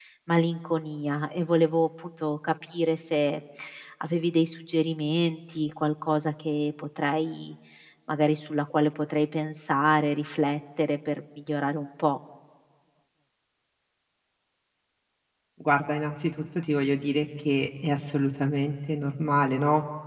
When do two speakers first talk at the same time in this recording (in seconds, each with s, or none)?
none